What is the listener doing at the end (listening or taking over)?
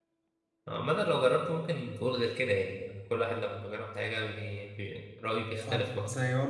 taking over